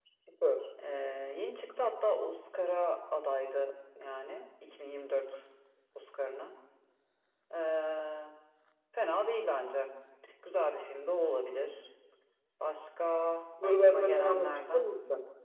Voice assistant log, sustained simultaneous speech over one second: present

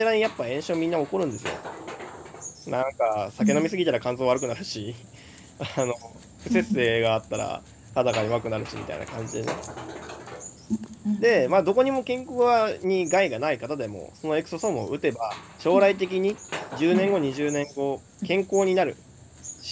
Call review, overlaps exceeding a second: none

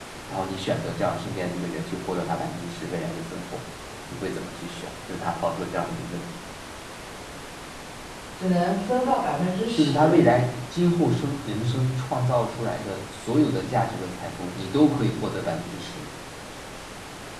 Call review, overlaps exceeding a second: none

